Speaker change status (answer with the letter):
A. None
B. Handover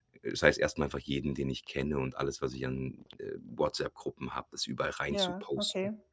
A